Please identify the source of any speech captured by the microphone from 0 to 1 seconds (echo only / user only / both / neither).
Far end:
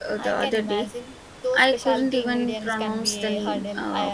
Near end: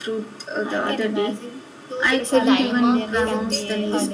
echo only